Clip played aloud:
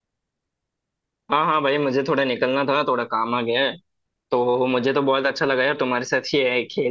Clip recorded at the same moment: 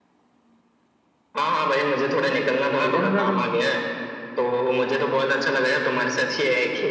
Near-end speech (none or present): present